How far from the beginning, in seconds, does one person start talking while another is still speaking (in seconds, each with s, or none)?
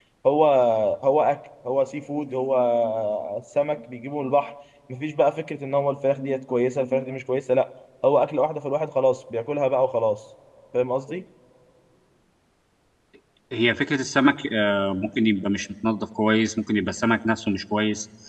none